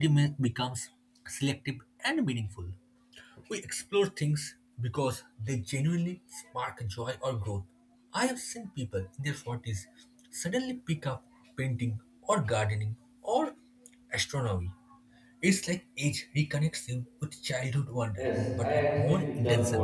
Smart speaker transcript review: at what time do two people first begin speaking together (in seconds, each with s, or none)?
18.2 s